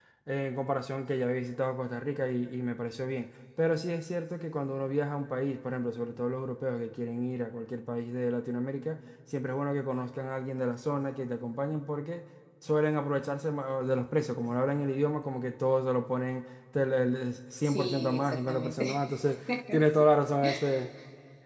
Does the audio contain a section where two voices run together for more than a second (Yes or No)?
Yes